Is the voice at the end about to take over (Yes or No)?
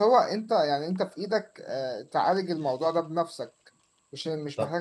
Yes